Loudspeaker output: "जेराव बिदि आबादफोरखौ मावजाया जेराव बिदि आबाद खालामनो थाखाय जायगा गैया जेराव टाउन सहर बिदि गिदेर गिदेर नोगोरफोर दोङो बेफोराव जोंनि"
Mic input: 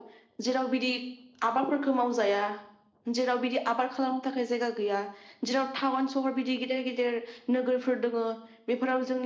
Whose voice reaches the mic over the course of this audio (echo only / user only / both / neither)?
echo only